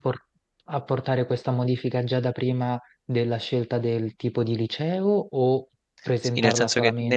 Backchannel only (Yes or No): No